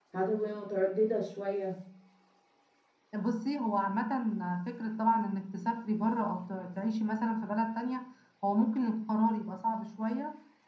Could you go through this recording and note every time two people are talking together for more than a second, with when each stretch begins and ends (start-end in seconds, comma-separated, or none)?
none